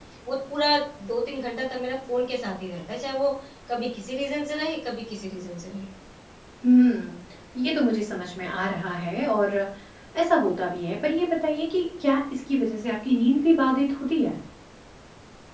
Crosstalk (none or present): none